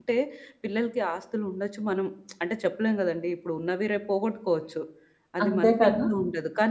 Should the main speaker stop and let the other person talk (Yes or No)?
No